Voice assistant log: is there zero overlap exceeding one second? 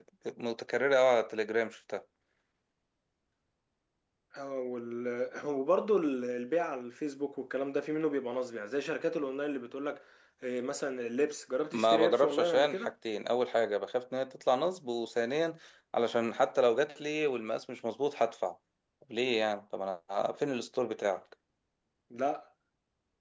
No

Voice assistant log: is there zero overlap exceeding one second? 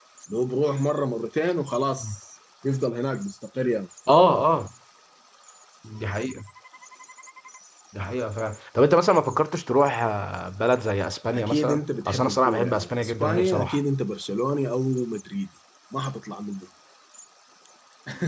No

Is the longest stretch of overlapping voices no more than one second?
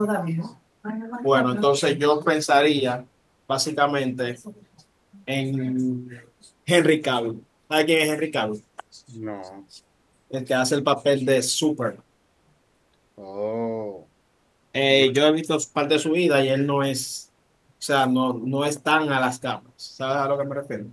Yes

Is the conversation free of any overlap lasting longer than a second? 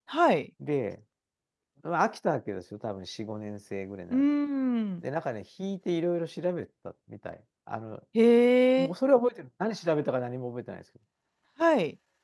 Yes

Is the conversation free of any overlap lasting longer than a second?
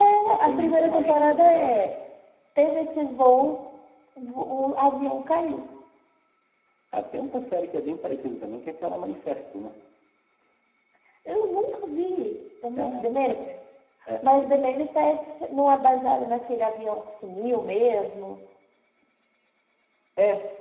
No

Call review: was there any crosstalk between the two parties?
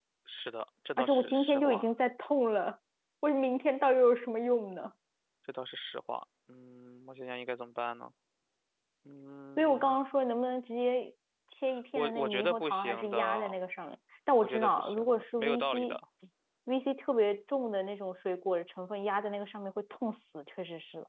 Yes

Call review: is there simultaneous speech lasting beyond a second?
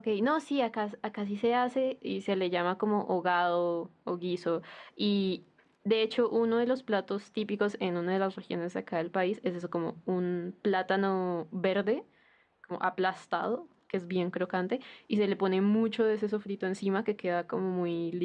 No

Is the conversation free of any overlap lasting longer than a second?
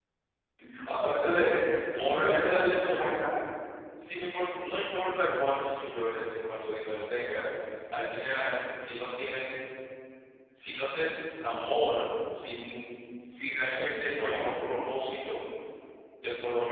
No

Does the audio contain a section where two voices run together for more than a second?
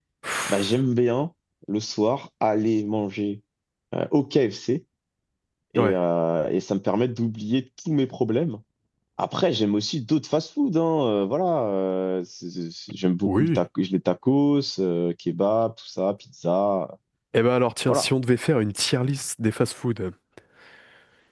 No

